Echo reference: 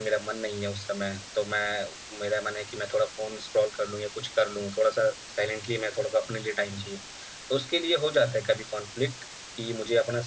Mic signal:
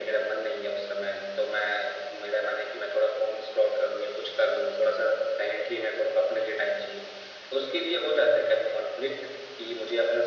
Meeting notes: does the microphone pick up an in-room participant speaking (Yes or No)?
No